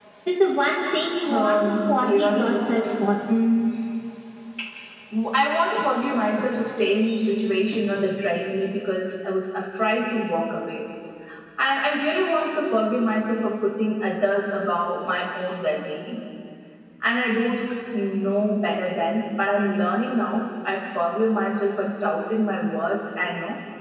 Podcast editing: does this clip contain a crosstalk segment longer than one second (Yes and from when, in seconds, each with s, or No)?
Yes, from 1.3 s